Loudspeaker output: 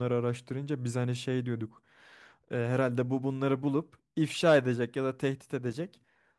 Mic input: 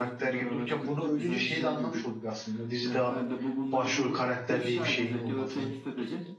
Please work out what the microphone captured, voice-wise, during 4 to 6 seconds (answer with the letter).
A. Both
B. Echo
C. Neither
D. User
A